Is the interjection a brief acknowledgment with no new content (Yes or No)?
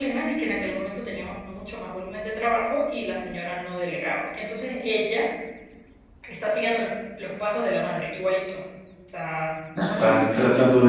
No